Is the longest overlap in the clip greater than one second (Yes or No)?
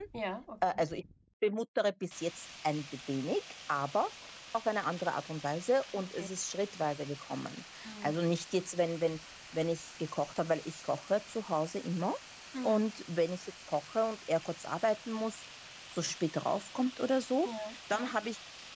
No